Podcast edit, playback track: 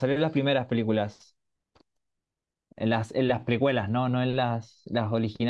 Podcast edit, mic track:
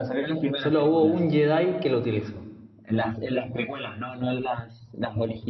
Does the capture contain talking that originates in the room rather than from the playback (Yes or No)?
Yes